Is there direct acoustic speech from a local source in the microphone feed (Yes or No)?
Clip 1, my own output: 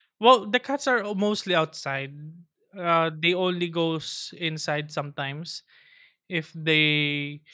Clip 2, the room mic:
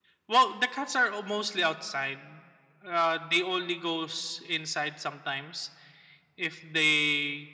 No